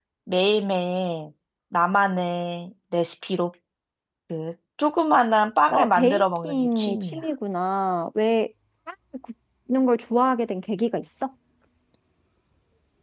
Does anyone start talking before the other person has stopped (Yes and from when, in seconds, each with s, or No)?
Yes, from 5.7 s